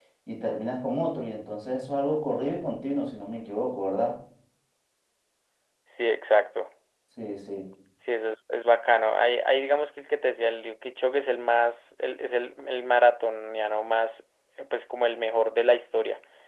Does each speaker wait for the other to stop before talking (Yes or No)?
Yes